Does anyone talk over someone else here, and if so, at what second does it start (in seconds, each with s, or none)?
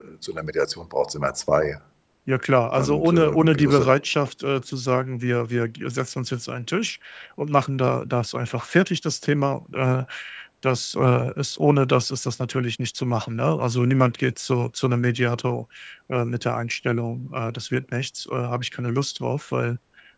2.6 s